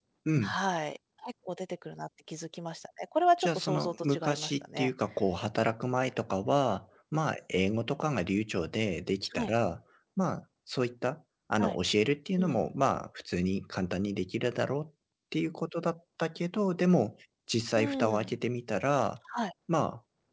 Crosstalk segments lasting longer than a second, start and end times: 3.4-4.9

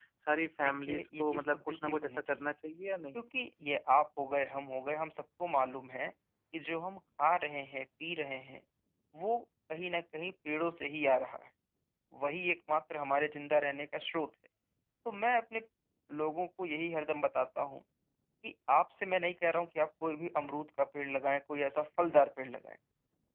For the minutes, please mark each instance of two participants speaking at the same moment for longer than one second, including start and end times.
0.6-2.5

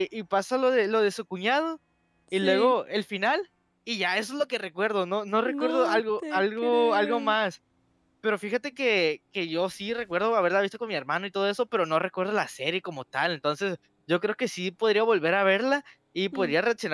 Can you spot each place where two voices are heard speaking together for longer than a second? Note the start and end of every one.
5.4-7.3

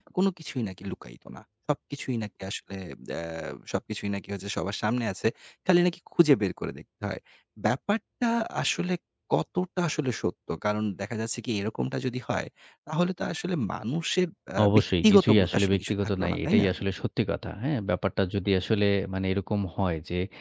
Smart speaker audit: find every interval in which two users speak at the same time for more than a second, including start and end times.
14.7-16.7

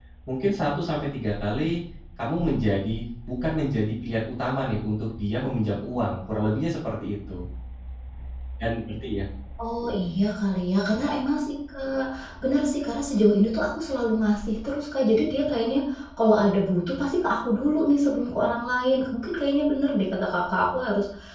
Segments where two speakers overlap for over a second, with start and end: none

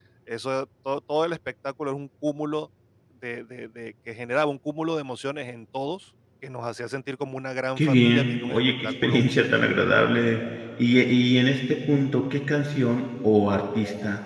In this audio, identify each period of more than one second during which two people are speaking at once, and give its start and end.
7.8-9.3

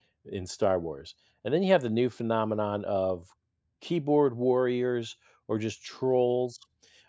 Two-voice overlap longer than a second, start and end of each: none

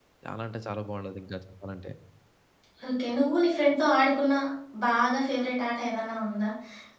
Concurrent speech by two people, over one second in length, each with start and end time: none

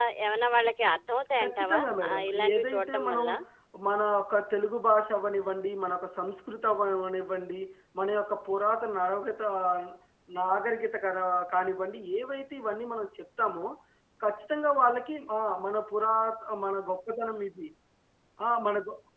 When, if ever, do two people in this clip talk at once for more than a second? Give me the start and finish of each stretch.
1.4-3.2

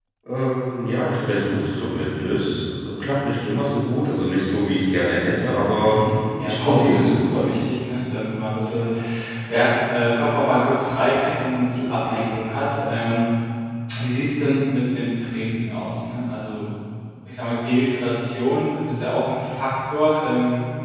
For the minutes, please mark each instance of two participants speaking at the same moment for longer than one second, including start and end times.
6.4-7.6

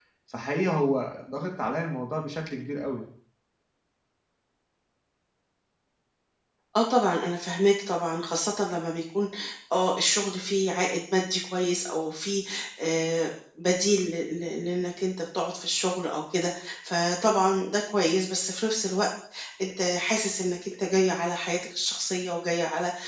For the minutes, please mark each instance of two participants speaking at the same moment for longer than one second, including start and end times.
none

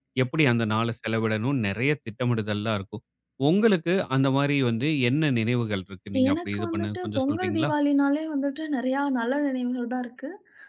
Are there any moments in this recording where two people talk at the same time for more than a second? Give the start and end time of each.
6.3-7.7

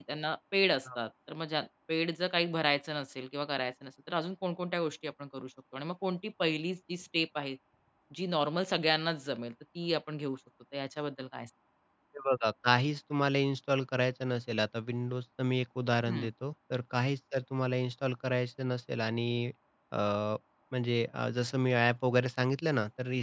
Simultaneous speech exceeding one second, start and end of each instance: none

